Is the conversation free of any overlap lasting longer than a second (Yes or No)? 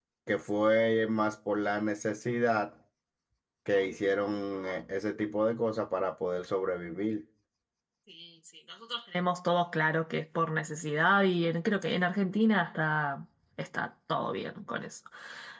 Yes